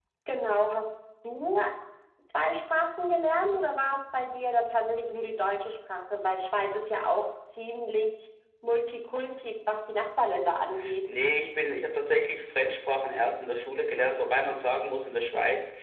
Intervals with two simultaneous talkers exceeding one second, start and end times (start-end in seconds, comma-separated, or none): none